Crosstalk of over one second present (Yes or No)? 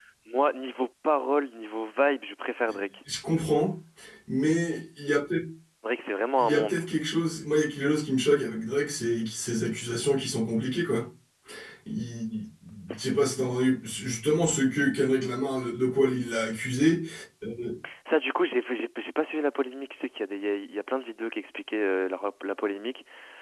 No